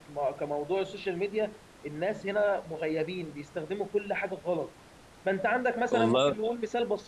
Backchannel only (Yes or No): Yes